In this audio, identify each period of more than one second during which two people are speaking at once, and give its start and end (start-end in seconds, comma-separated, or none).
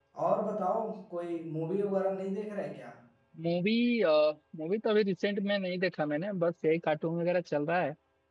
none